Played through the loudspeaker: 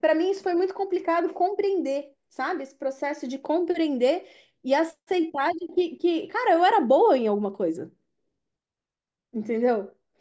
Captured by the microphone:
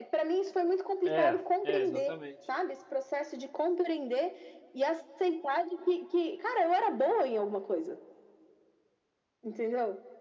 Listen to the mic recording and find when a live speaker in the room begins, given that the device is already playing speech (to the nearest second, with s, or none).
1 s